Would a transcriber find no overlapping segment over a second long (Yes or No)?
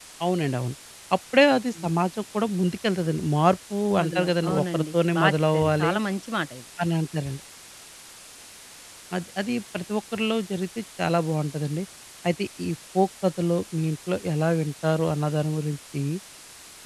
No